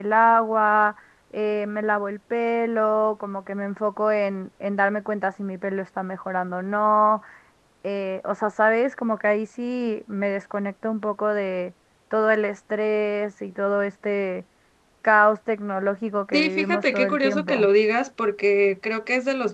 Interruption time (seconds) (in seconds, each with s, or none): 16.3 s